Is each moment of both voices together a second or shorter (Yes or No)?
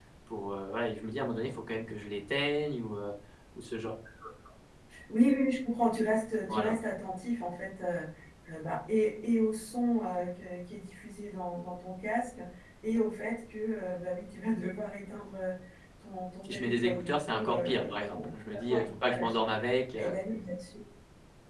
No